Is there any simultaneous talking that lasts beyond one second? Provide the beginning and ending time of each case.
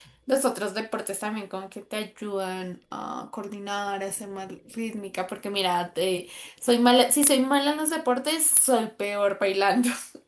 none

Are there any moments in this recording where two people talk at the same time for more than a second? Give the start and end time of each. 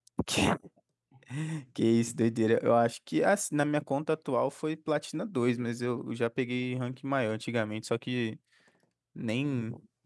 none

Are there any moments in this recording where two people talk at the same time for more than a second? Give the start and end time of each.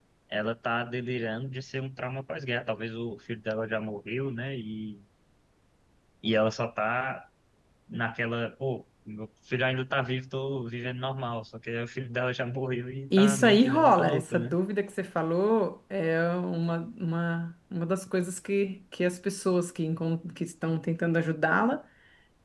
13.2-14.6

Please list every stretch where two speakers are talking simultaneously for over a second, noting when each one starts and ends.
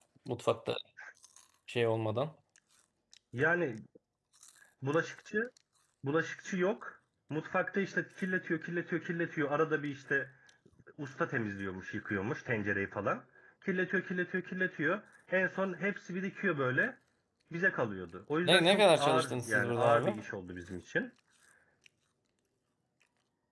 18.4-20.2

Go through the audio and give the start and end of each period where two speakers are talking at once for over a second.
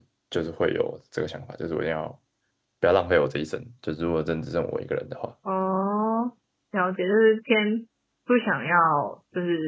none

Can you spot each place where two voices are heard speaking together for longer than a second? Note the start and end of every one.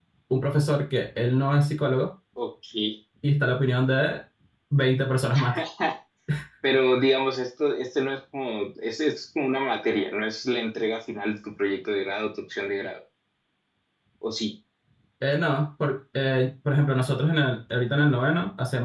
none

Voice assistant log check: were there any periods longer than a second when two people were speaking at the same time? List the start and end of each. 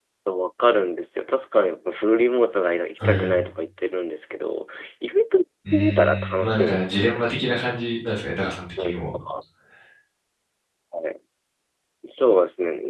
5.7-7.2

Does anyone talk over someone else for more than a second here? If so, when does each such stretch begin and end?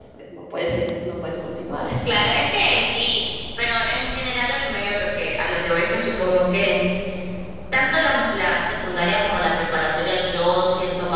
none

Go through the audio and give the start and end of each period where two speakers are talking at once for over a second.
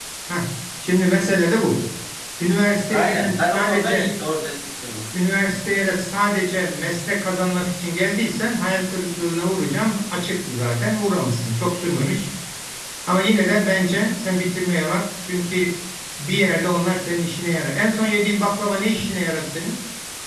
2.9-4.1

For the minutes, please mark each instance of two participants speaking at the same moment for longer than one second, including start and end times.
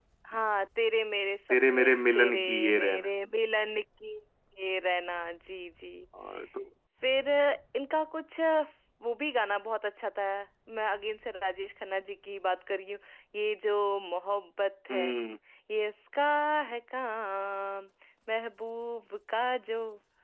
1.7-3.0

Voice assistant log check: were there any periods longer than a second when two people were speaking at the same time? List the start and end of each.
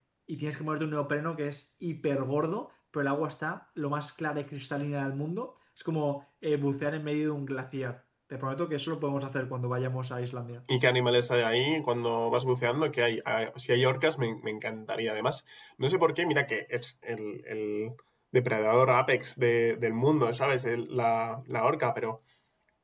none

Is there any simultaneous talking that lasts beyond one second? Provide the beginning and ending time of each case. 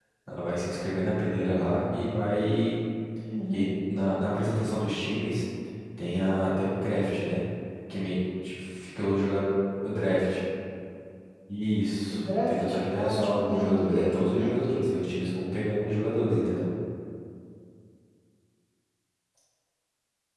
12.1-14.8

